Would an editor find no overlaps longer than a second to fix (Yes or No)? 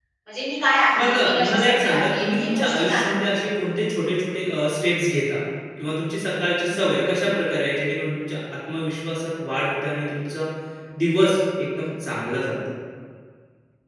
No